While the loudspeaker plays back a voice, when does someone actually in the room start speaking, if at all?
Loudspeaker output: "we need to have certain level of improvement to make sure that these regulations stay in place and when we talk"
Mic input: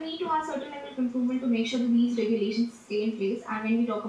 none

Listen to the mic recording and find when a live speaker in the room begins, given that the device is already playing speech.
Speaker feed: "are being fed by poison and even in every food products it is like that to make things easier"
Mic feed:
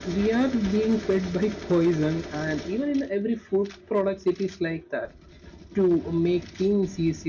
none

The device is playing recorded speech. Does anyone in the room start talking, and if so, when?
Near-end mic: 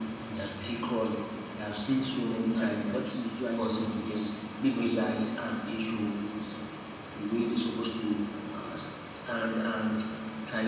3 s

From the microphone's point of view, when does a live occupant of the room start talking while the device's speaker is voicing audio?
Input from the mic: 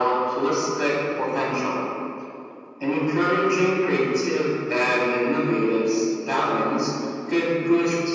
none

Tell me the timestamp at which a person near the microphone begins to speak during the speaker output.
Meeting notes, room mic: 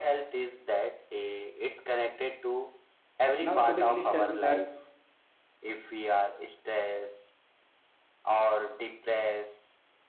3 s

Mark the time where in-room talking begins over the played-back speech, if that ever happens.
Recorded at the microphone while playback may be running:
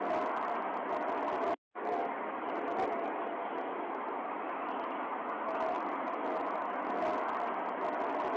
none

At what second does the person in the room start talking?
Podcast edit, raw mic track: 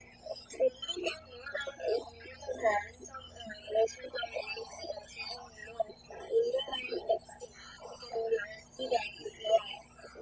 none

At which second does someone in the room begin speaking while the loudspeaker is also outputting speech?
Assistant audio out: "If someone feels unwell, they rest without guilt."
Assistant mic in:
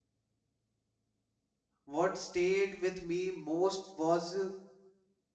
2 s

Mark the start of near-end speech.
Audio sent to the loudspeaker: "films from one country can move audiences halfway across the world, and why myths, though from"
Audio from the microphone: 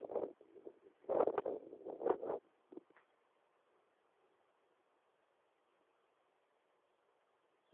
none

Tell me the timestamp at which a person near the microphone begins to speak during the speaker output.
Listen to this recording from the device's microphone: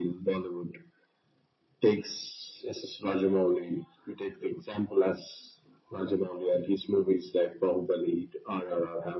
none

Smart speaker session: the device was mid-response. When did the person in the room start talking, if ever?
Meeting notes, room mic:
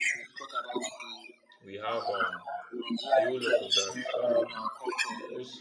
2 s

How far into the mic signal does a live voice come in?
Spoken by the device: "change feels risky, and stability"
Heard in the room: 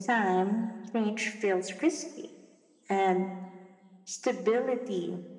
none

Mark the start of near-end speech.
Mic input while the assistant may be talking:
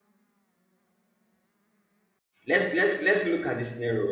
2 s

